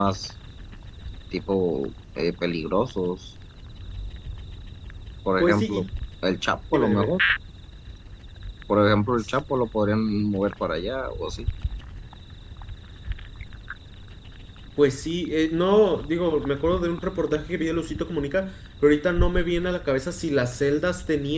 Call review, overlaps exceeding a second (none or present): none